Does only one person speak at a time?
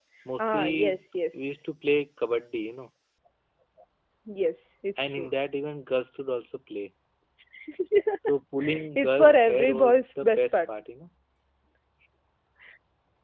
No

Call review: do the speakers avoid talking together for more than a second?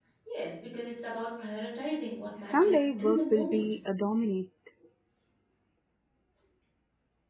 No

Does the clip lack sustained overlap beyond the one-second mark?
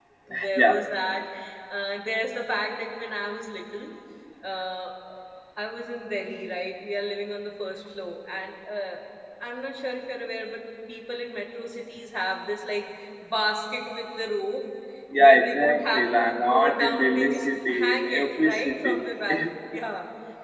No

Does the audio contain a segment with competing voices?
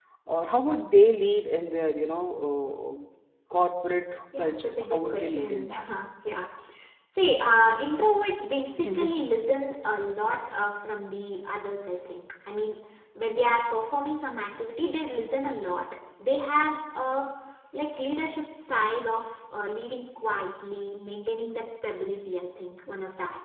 Yes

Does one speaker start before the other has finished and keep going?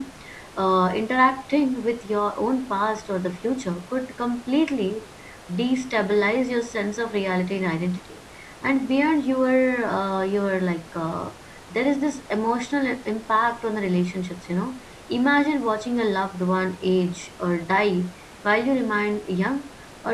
No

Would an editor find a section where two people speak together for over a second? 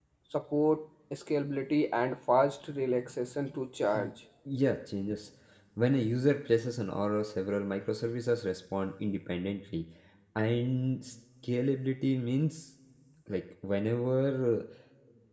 No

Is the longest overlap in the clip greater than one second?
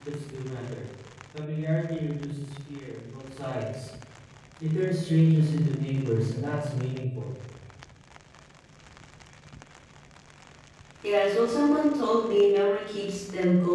No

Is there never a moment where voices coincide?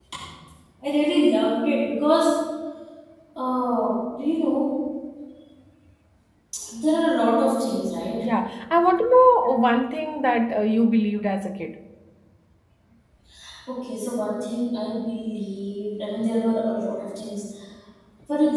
Yes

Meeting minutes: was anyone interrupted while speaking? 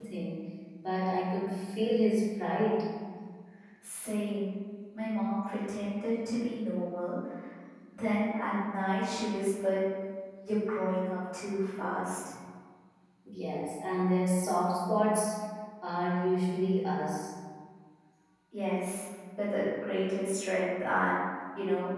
No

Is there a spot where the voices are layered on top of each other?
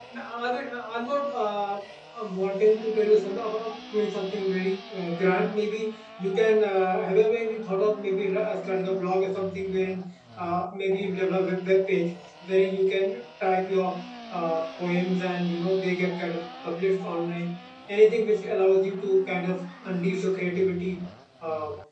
No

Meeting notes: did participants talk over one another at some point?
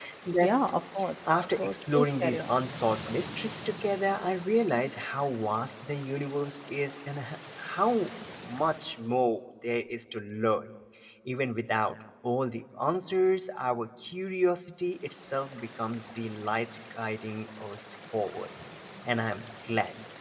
Yes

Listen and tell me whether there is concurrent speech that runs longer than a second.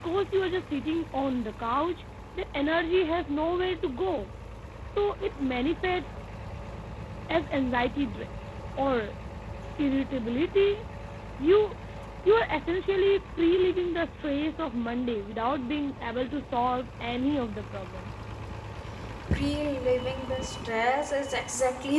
No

